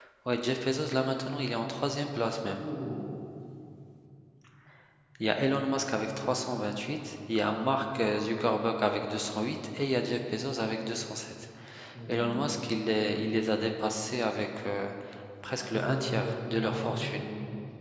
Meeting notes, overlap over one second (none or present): present